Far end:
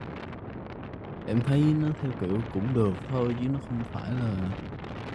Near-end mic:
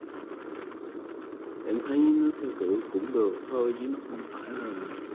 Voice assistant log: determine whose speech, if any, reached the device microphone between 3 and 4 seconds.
echo only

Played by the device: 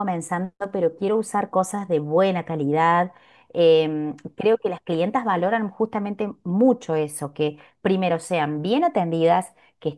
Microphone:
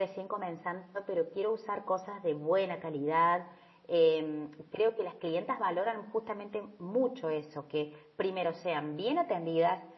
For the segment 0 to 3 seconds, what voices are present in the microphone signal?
echo only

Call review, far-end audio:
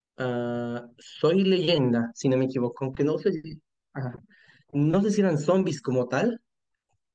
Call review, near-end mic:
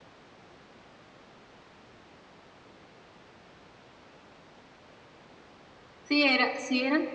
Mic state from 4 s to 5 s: neither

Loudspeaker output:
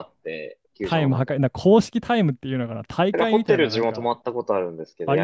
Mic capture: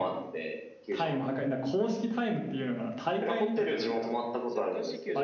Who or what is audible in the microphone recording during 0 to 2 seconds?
echo only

